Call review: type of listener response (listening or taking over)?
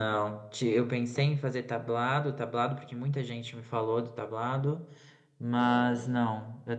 listening